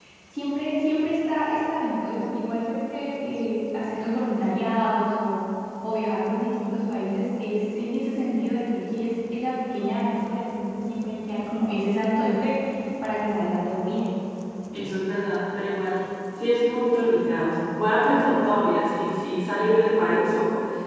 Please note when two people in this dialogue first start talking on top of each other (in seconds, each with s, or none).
none